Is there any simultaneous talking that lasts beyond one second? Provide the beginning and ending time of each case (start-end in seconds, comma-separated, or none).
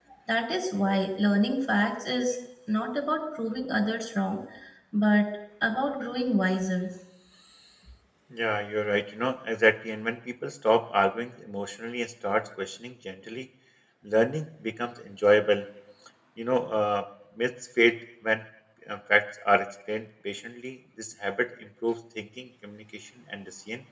none